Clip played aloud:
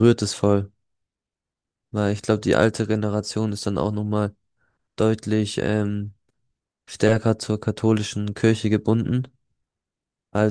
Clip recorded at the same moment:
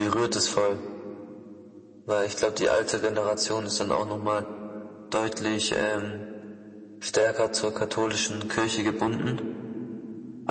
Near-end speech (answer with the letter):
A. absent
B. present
A